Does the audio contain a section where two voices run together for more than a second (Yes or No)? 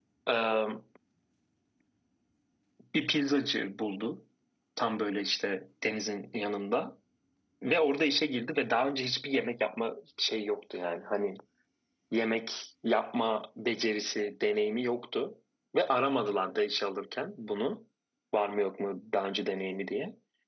No